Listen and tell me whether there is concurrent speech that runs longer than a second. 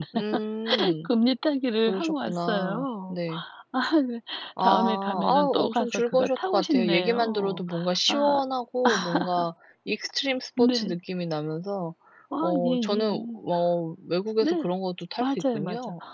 Yes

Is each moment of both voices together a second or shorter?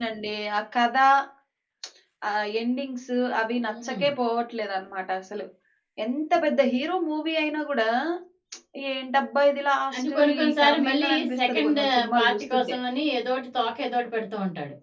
No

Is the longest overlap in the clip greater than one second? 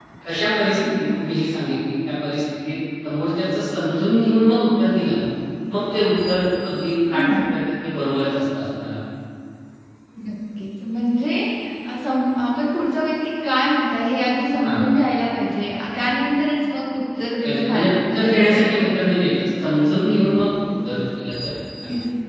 Yes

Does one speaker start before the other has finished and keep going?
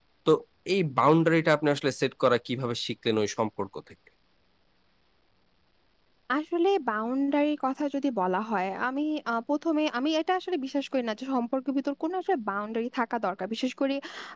No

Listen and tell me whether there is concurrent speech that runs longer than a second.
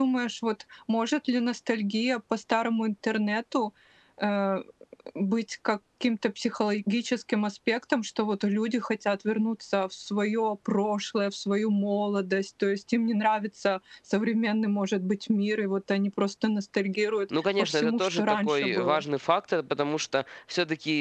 Yes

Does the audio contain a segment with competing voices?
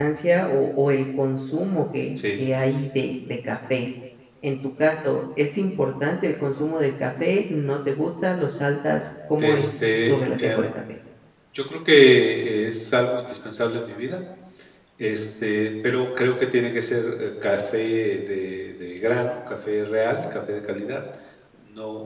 Yes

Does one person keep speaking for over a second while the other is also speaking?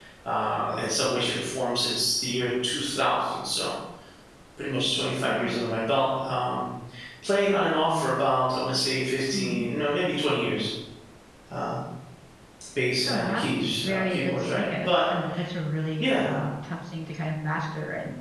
Yes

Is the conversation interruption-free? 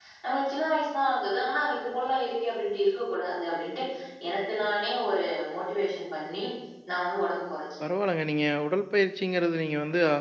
Yes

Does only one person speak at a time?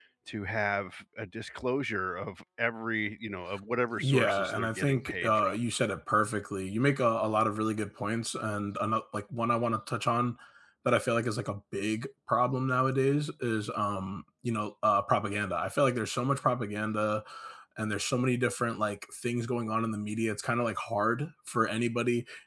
No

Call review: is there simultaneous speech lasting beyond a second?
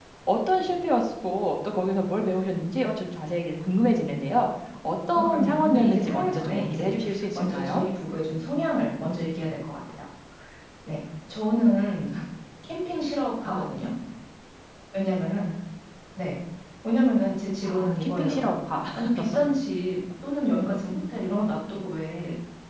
Yes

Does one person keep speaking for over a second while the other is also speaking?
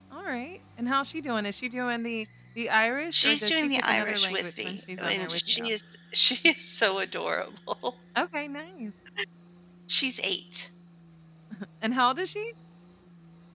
Yes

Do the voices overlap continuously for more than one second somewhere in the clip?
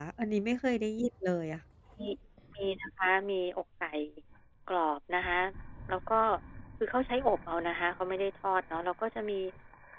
No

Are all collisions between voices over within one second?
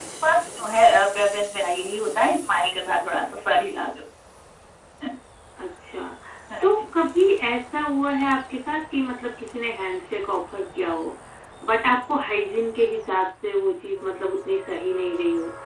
Yes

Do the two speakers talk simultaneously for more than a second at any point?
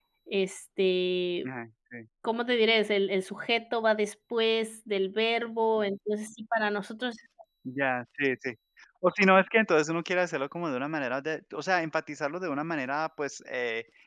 No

